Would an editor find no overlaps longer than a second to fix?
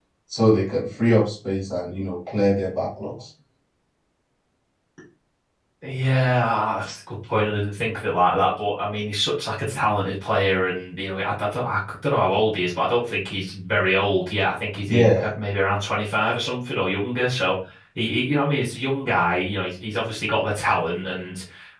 Yes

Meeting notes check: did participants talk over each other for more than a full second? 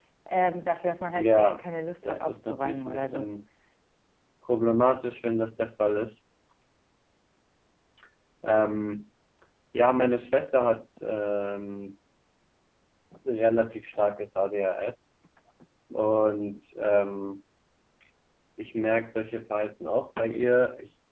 Yes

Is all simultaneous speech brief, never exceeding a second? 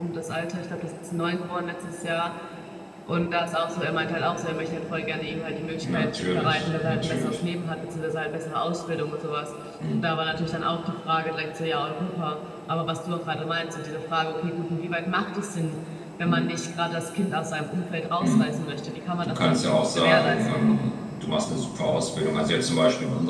No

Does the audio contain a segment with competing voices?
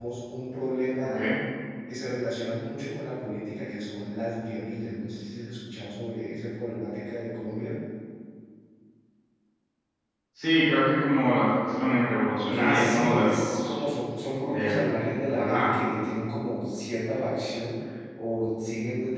Yes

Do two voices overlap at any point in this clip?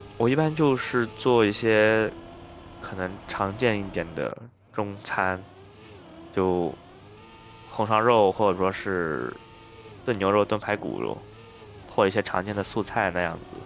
No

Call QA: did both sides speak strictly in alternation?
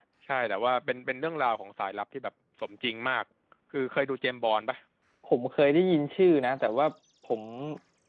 Yes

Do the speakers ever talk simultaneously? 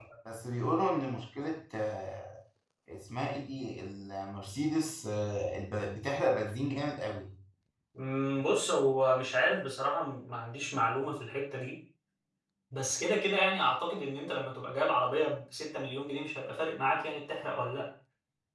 No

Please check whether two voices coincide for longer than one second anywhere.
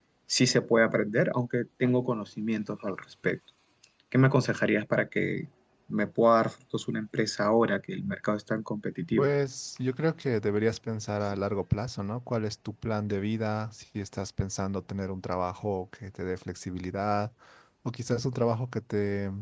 No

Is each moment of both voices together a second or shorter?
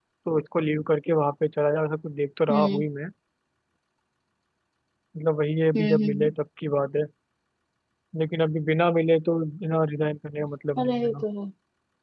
Yes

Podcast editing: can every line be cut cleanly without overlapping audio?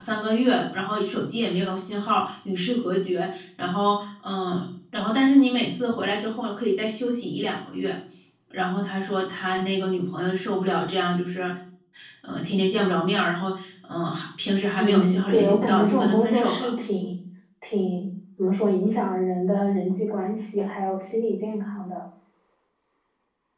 No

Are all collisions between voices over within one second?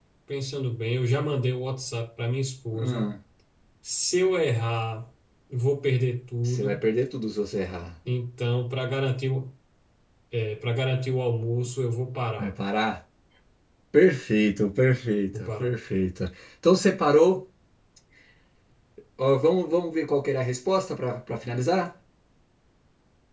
Yes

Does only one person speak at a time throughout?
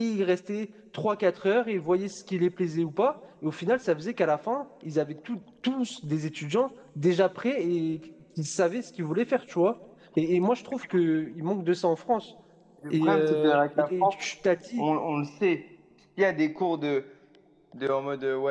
No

